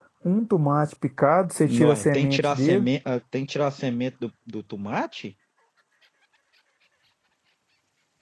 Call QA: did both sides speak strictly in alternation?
No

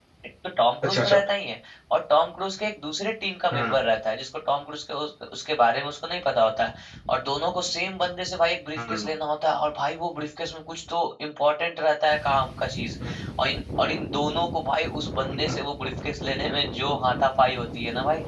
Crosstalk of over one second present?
No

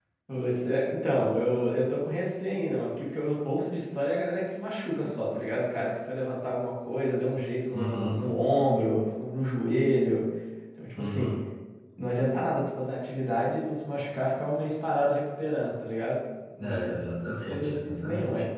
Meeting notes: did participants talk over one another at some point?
Yes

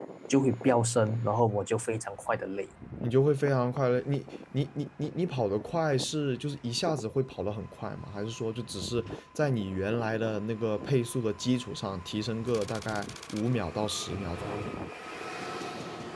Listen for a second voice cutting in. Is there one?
No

